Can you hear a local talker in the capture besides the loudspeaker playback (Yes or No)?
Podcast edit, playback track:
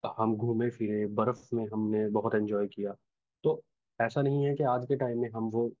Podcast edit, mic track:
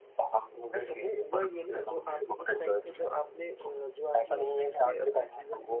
Yes